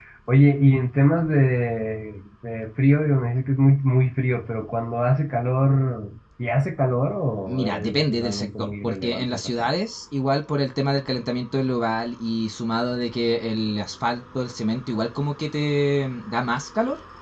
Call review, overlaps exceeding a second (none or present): present